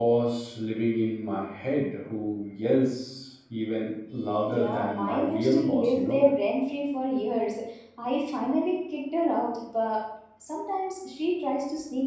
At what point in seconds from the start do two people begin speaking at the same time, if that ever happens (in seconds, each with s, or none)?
4.5 s